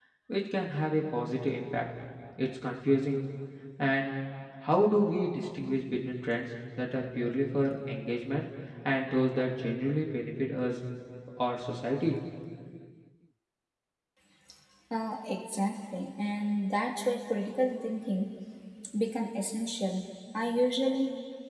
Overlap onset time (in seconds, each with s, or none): none